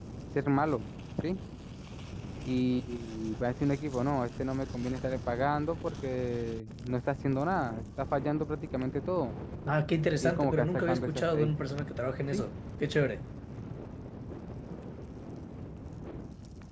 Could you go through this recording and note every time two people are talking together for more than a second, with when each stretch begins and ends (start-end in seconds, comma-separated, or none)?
10.2-11.8